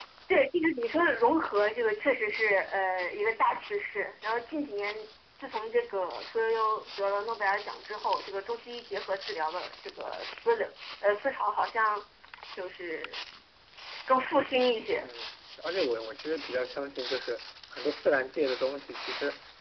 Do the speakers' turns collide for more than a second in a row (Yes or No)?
No